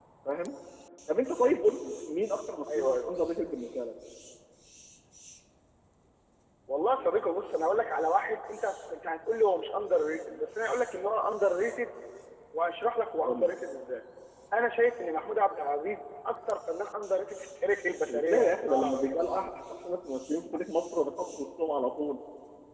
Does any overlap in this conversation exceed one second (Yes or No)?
Yes